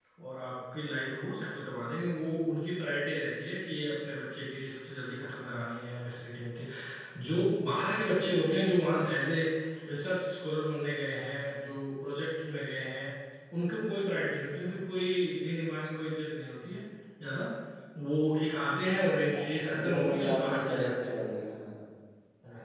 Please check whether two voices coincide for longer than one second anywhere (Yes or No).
Yes